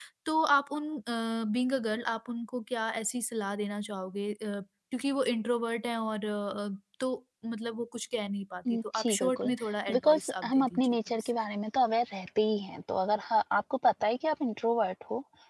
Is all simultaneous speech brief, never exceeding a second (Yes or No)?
No